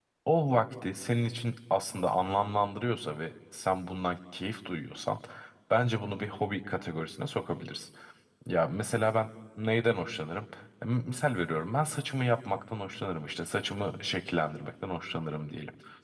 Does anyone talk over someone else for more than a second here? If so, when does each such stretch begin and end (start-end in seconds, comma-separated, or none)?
none